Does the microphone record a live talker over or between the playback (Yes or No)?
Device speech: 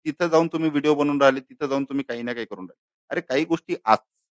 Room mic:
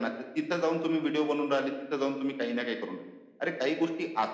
No